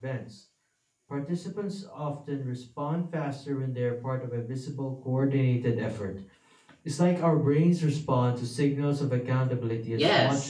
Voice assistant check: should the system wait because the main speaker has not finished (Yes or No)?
No